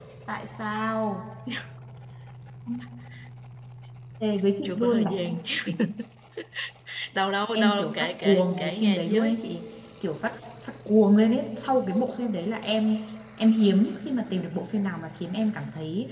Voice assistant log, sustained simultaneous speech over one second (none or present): present